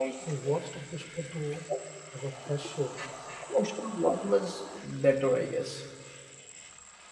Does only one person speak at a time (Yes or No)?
Yes